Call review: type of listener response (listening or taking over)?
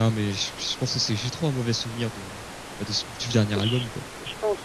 taking over